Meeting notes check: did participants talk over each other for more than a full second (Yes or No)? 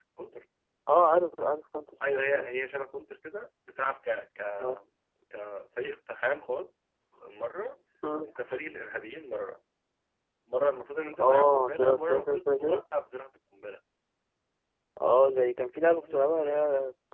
Yes